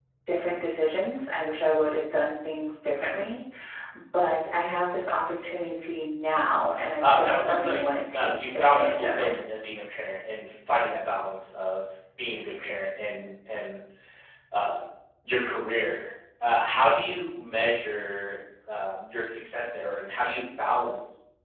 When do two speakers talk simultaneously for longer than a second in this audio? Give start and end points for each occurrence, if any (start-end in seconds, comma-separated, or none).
7.0-9.3